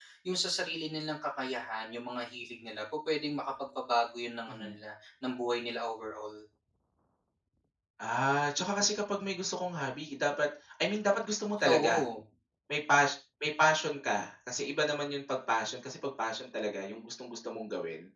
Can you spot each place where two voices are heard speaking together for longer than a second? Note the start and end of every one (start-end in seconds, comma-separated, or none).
none